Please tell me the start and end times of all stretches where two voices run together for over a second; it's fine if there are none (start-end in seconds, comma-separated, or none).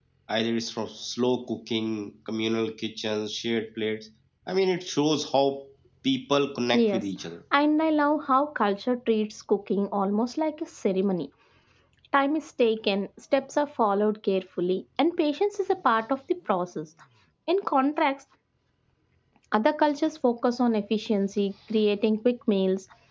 none